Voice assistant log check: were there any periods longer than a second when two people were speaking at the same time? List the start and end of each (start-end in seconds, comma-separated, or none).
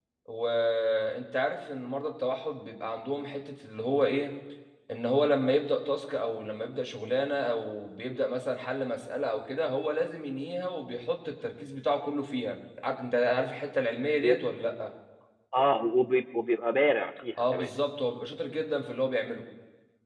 none